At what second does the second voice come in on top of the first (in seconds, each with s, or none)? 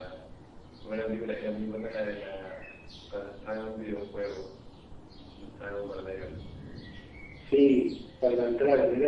none